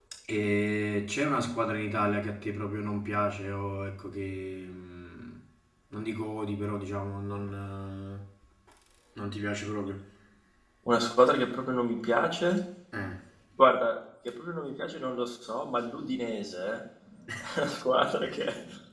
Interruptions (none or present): none